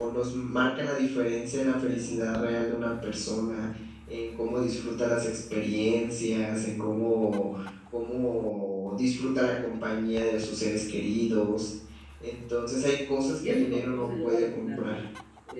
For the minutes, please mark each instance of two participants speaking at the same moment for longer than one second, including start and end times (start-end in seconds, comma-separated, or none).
13.4-15.0